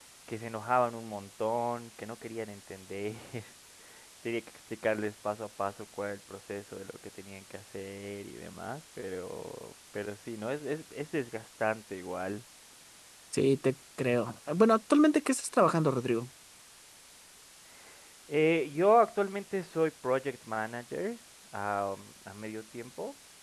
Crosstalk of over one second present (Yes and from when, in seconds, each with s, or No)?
No